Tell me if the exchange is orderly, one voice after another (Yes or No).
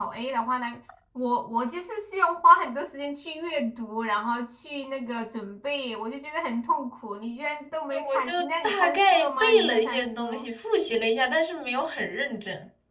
No